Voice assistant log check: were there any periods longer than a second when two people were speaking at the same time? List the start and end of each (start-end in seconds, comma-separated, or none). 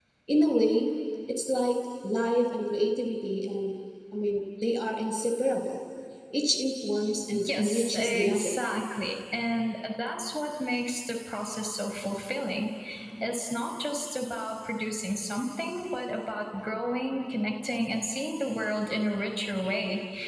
7.3-8.6